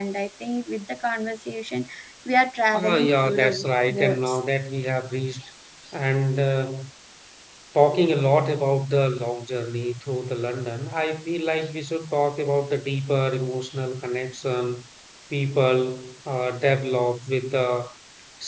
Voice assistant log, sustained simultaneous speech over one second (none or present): present